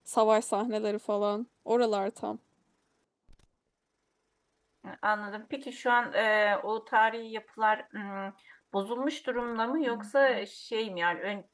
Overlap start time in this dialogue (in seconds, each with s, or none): none